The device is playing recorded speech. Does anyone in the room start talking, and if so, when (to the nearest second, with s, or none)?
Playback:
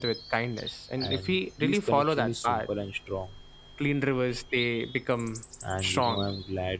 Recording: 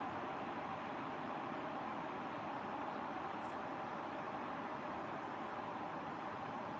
none